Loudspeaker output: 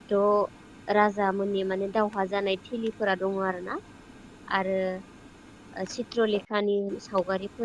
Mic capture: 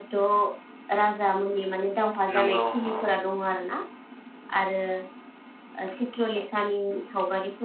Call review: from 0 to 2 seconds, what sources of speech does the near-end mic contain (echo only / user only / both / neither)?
echo only